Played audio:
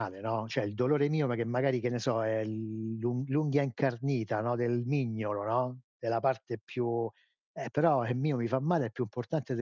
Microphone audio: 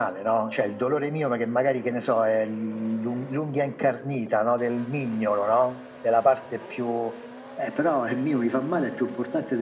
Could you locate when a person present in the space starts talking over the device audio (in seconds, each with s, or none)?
none